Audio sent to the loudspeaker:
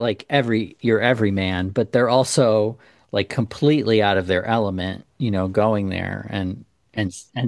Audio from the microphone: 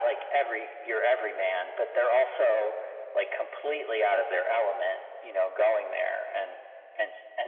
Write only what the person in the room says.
none

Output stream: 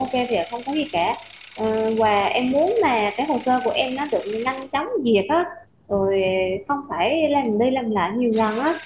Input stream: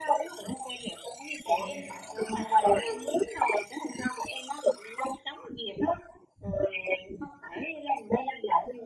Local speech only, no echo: Để em phải không phải lo lắng. hết.

